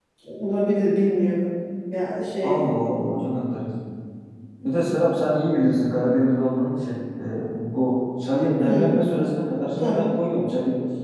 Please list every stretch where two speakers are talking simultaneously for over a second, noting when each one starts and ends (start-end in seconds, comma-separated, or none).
none